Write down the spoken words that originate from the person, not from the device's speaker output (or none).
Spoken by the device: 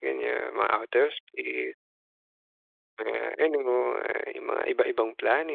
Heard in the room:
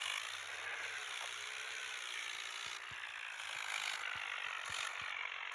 none